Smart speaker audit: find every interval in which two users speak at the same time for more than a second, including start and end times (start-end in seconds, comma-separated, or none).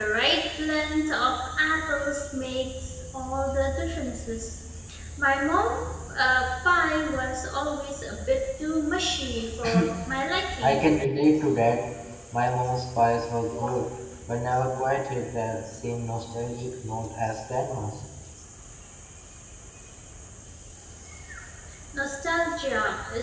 none